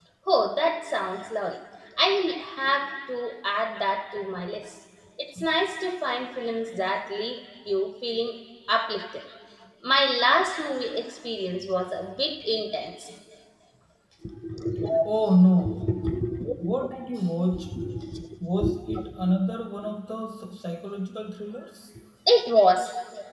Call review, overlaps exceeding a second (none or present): none